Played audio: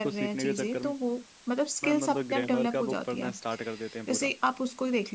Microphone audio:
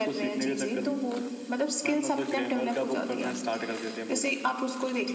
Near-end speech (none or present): none